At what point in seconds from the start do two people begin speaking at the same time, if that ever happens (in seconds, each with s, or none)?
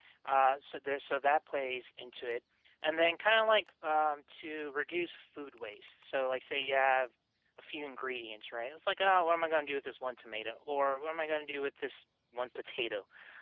none